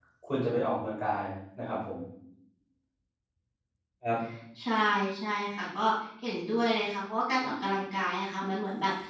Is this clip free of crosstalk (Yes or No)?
Yes